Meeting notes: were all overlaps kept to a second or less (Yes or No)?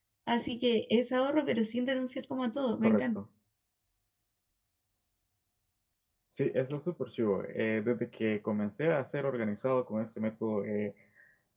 Yes